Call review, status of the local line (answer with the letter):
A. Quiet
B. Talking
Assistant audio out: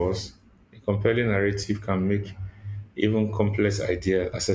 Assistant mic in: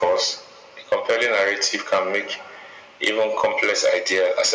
A